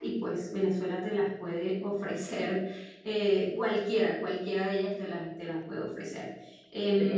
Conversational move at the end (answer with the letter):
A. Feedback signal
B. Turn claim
B